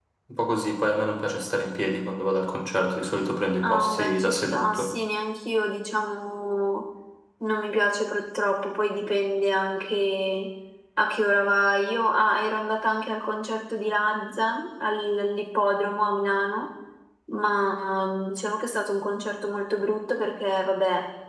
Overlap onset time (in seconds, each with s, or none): 3.6 s